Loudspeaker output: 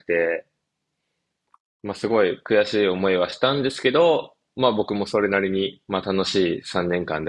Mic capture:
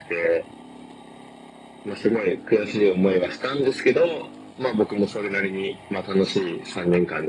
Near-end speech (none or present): none